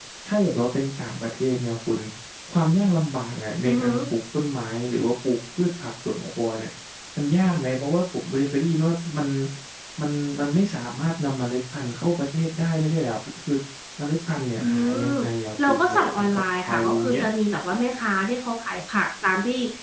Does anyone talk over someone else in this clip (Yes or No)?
Yes